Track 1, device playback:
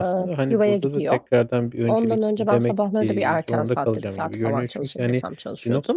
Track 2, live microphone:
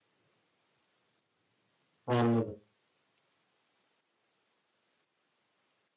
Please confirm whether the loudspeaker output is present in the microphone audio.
No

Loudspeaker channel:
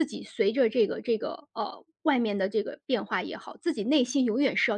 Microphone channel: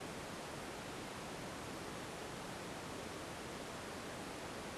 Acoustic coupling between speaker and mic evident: No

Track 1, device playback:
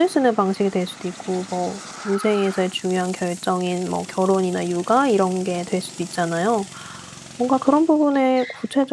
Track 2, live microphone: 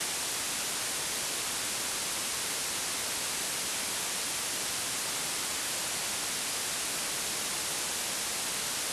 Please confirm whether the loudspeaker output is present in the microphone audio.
No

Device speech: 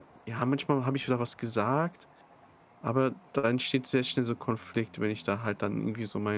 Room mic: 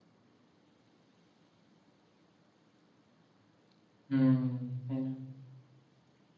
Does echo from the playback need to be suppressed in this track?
No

